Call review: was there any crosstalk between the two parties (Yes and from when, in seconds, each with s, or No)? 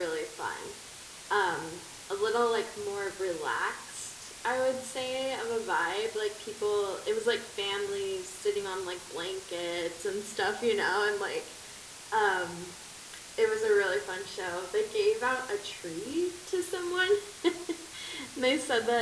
No